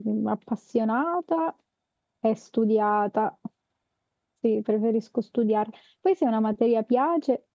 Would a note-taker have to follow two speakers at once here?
No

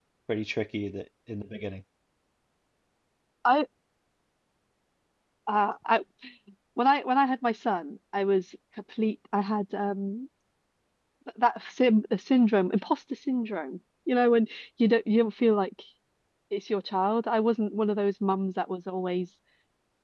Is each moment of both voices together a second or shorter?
Yes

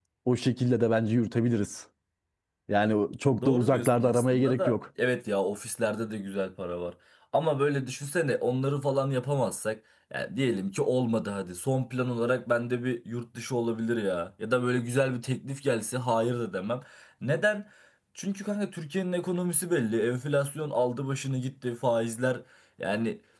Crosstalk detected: Yes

